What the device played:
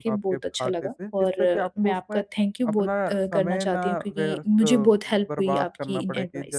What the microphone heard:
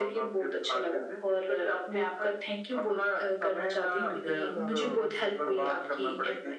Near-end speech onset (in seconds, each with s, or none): 3.9 s